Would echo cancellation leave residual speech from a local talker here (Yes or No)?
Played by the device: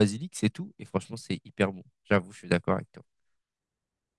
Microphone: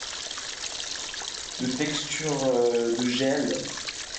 Yes